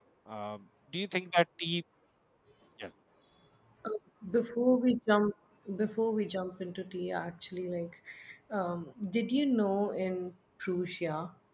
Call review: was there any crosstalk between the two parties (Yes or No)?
No